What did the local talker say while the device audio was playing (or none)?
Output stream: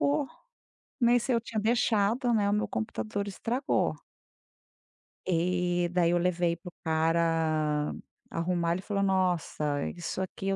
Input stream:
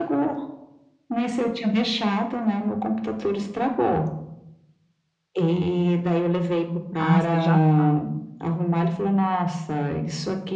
Ah, você já tá.